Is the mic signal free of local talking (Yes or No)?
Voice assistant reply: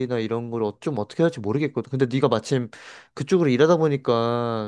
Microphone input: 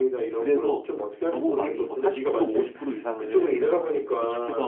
No